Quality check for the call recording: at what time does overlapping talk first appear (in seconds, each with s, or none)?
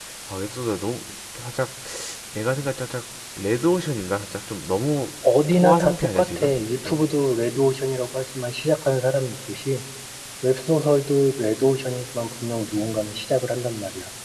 5.5 s